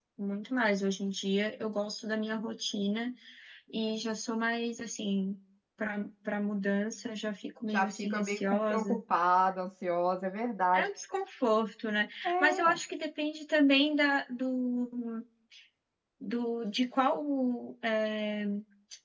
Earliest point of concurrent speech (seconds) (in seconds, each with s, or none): 7.7 s